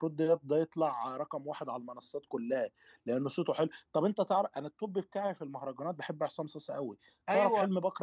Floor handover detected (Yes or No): No